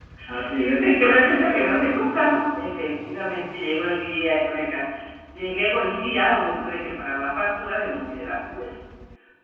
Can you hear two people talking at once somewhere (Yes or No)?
Yes